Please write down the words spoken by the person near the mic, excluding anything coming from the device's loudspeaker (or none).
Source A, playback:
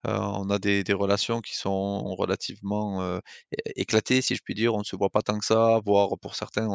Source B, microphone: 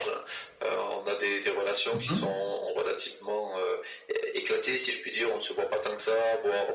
Mmh